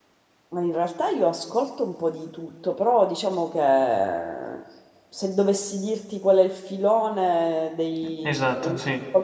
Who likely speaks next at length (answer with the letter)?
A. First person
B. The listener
A